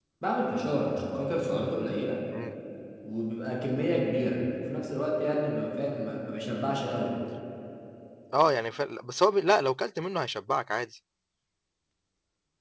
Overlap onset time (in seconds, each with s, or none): none